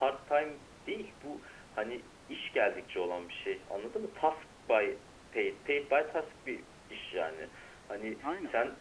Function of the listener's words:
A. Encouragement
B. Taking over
A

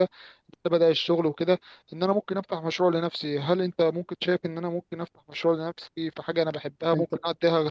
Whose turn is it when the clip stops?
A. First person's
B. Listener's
A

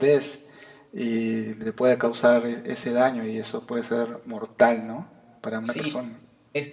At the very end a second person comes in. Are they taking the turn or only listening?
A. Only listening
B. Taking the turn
B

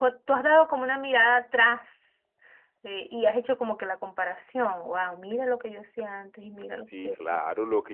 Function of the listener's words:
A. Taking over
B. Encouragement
A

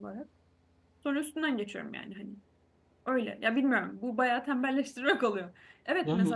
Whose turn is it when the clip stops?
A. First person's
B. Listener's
A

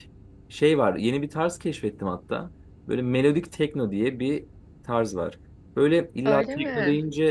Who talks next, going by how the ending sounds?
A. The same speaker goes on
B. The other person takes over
A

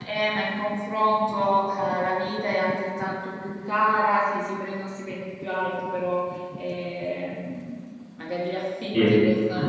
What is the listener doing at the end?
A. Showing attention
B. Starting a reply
A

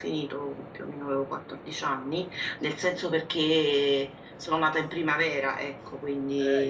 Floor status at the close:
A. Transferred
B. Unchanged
A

